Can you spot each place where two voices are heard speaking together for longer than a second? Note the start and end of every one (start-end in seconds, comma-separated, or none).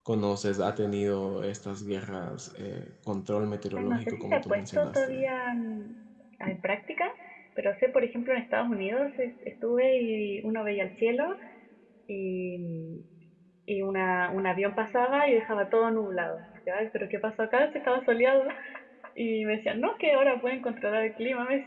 3.8-5.3